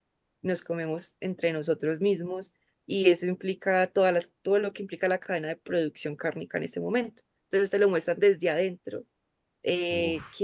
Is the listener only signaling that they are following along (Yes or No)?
Yes